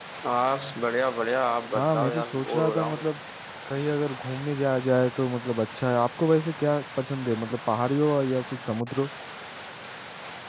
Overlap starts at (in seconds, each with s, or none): 1.8 s